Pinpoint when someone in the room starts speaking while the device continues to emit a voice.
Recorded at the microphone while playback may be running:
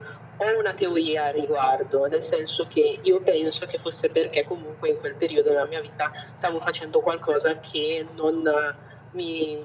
none

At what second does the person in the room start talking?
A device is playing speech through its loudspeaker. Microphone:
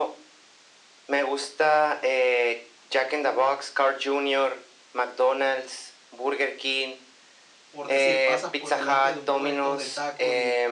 8 s

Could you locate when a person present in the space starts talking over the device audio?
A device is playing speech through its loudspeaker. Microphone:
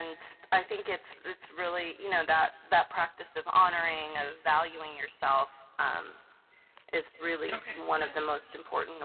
8 s

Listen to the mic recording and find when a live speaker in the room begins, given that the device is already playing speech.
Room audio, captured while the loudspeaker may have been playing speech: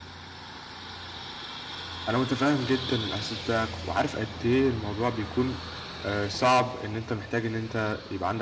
2 s

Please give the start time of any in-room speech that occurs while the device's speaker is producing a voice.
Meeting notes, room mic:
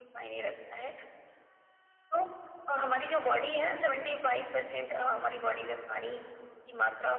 none

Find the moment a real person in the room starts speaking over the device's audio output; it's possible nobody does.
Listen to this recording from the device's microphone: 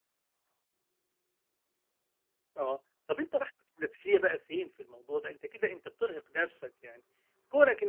3 s

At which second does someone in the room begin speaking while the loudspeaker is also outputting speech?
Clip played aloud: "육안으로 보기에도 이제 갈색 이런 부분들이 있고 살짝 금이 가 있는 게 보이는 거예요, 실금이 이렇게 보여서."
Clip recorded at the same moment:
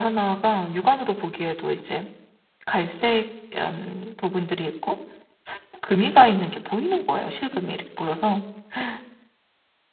none

